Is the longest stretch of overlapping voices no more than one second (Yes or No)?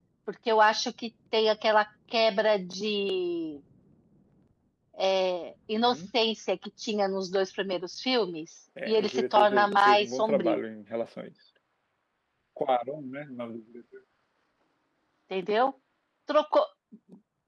No